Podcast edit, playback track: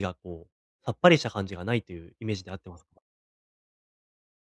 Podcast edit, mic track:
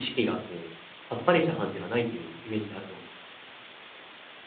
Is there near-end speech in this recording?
No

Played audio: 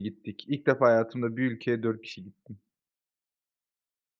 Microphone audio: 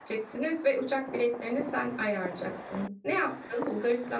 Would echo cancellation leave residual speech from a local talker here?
Yes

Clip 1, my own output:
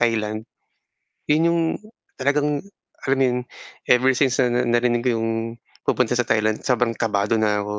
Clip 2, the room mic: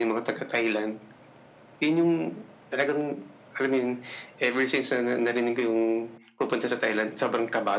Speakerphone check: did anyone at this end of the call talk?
No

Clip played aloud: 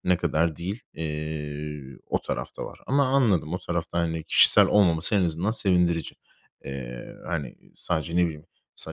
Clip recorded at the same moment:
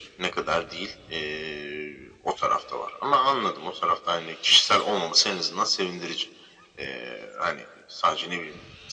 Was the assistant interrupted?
No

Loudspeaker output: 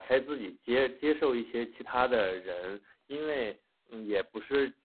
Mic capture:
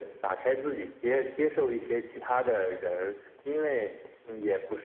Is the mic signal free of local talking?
Yes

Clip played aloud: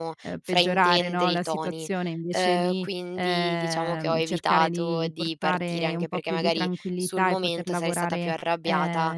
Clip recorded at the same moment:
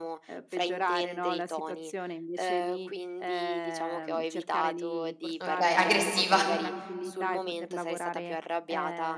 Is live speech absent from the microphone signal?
No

